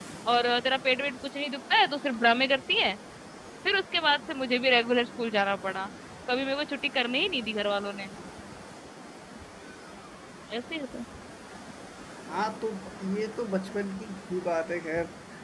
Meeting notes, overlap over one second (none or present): none